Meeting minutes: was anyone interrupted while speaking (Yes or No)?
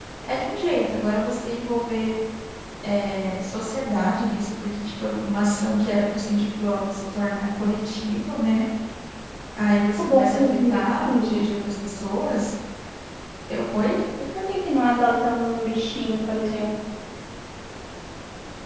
Yes